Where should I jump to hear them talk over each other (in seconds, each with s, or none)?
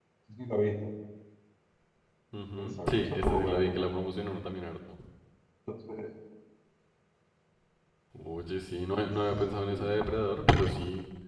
2.6 s